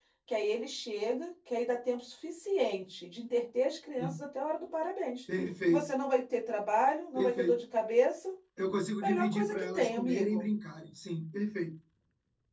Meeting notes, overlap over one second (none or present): present